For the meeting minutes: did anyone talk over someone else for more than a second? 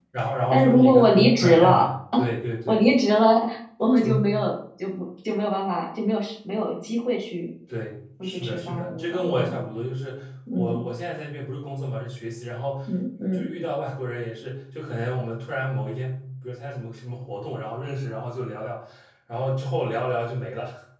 Yes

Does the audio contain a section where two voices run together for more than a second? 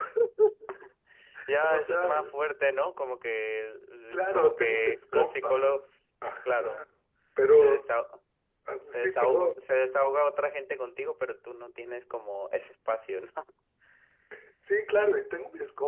Yes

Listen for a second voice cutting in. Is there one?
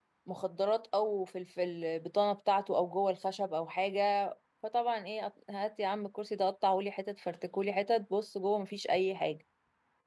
No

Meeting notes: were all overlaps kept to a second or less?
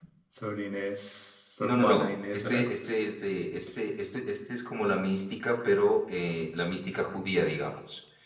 No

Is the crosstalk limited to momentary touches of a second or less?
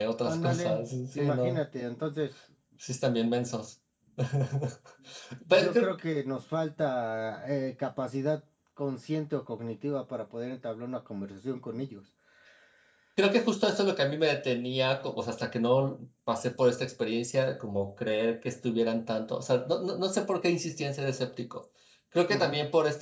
No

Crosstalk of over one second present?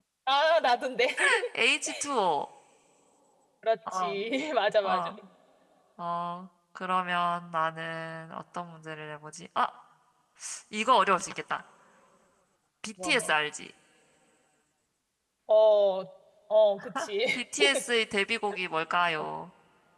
No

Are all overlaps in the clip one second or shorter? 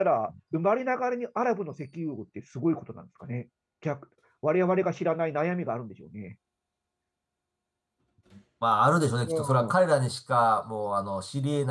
Yes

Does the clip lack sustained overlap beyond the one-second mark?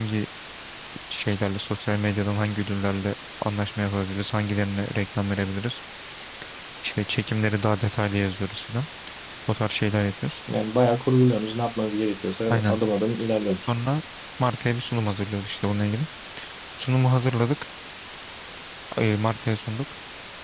Yes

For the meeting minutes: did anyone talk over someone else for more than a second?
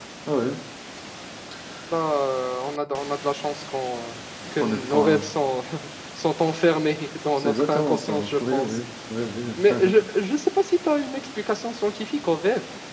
Yes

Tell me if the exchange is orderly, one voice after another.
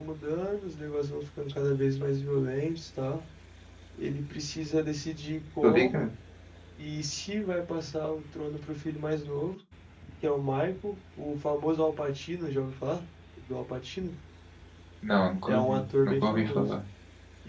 No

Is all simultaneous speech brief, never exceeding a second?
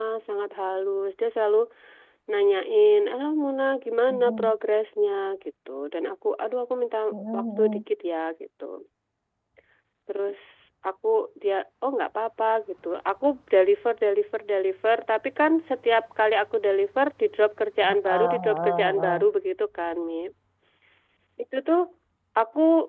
No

